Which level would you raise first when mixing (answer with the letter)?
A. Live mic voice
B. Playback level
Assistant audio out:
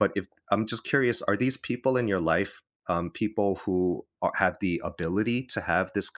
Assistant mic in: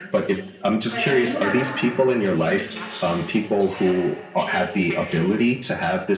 A